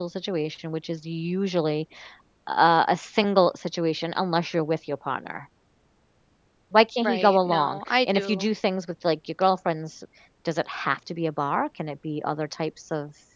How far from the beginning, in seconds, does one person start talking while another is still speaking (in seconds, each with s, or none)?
7.0 s